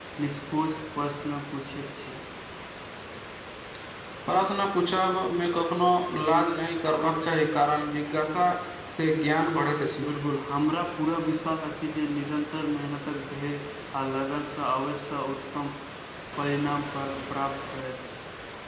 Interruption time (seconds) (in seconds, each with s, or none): none